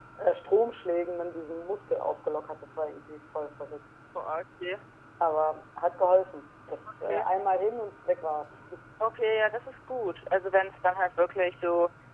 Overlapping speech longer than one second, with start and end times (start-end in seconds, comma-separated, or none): none